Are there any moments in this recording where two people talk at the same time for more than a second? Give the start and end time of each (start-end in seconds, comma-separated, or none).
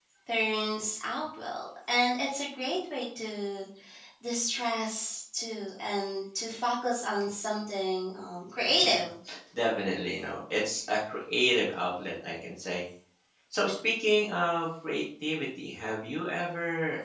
none